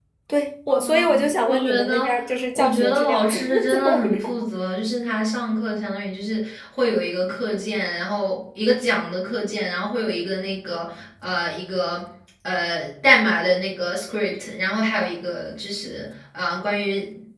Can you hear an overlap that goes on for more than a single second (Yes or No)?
Yes